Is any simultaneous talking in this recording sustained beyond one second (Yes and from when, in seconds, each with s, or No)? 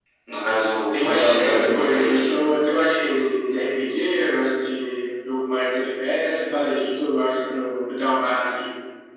Yes, from 1.0 s